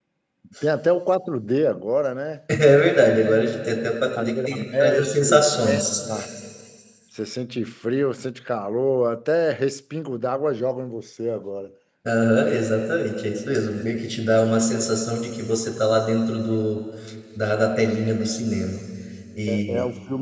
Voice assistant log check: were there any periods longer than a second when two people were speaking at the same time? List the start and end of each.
4.2-5.9

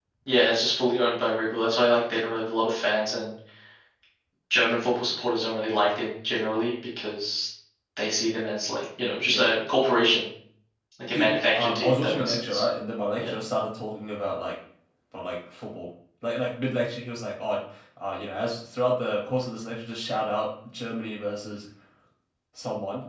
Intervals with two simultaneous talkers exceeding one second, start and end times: 11.1-12.6

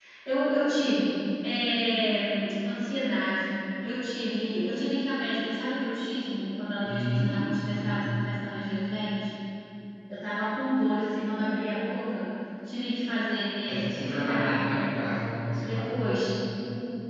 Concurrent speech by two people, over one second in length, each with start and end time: 6.8-8.1, 13.7-14.9

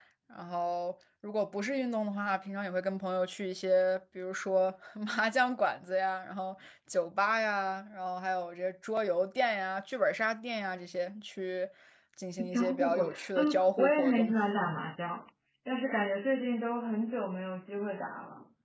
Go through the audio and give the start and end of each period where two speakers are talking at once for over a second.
12.5-14.3

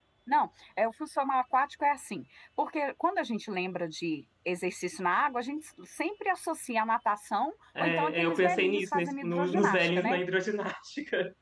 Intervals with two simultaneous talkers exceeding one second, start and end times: 7.8-10.2

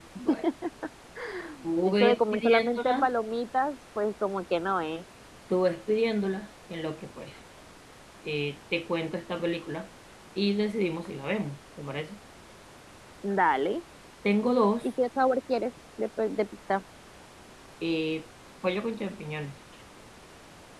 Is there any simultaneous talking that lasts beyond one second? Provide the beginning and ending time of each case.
1.8-3.1

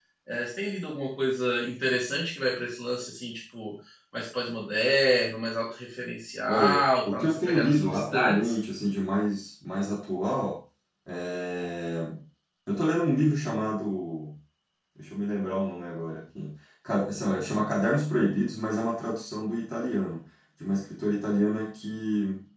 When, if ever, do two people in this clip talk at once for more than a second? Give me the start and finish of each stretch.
6.5-8.5

